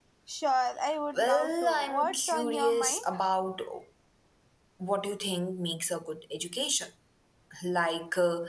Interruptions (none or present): present